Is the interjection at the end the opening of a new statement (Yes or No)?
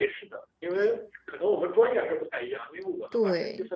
No